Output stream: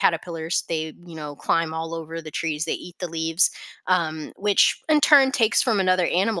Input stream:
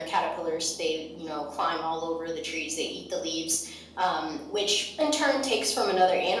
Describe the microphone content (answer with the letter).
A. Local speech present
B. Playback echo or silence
B